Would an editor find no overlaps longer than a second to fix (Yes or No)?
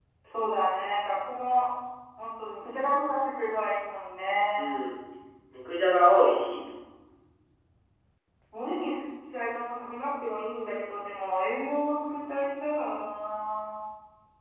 Yes